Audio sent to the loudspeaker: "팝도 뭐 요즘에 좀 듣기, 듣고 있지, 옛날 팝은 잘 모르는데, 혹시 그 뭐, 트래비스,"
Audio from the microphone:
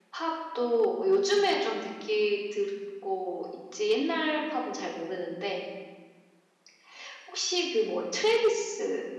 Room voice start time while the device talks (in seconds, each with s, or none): none